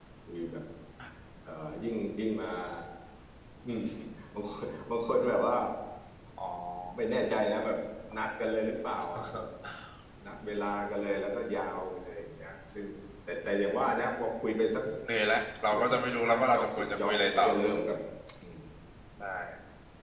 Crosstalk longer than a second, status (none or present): present